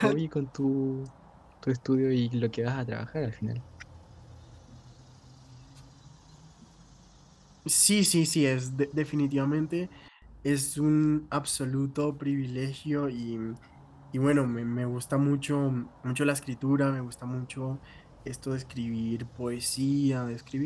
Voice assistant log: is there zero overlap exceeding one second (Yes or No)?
Yes